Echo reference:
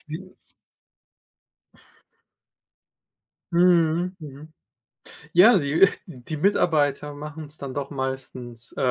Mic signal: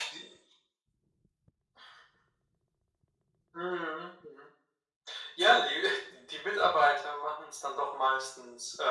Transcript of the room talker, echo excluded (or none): none